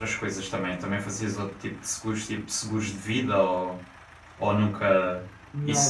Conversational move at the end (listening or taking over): taking over